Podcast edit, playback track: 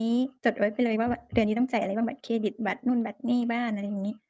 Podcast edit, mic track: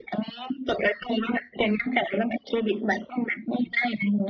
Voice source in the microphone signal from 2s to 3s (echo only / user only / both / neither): echo only